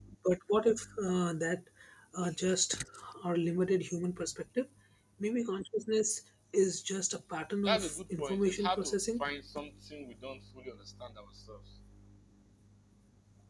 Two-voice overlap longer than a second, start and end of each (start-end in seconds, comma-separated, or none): 7.6-9.2